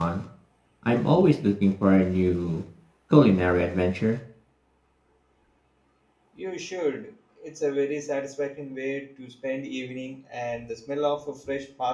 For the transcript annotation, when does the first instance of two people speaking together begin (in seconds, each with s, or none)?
none